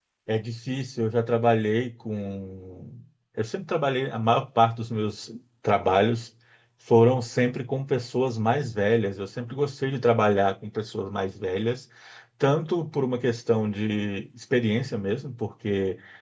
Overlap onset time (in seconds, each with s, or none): none